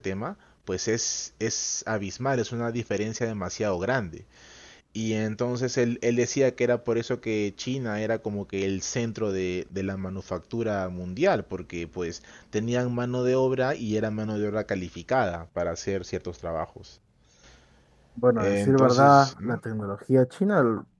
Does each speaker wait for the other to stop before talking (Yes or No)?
No